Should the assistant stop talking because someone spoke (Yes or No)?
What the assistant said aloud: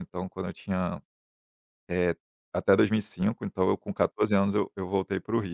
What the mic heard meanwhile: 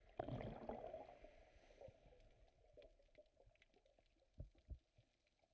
No